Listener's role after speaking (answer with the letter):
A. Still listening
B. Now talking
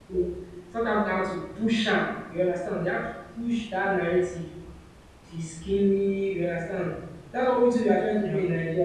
A